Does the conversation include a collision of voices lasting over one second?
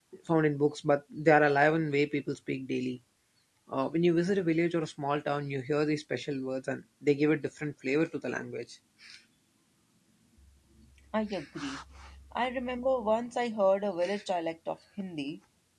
No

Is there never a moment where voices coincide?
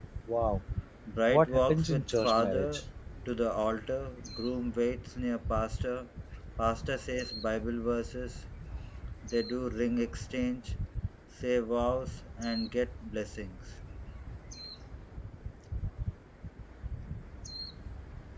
No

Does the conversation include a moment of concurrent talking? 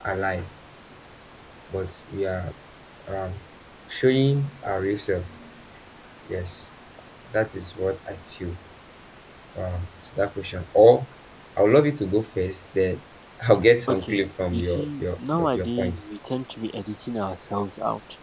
Yes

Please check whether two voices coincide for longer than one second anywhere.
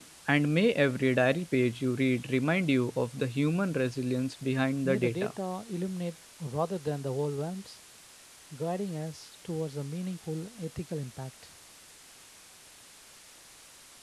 No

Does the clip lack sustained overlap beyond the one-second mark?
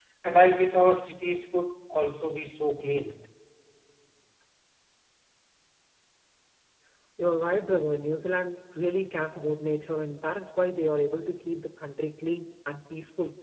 Yes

